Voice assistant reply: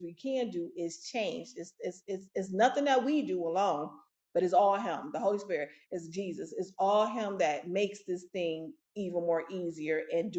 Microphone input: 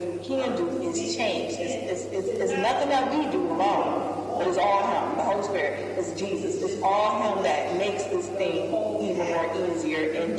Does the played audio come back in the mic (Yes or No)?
Yes